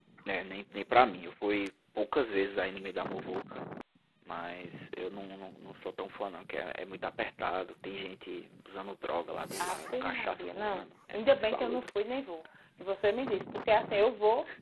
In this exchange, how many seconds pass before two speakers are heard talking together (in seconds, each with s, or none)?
9.6 s